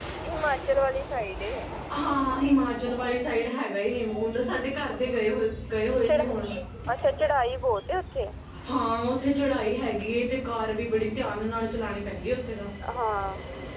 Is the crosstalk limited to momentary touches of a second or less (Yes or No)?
Yes